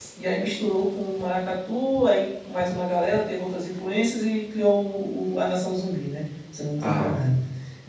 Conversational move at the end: listening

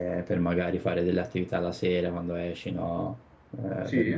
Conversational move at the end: listening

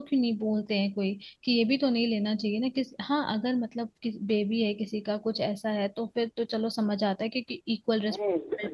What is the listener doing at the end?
taking over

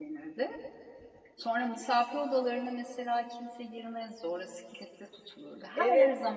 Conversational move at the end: taking over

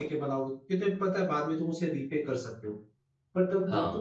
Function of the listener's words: listening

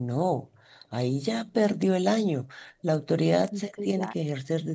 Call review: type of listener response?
listening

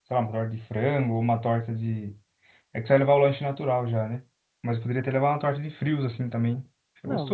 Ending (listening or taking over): taking over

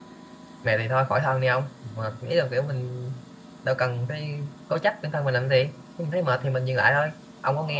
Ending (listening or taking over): listening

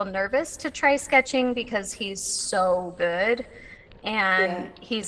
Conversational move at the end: listening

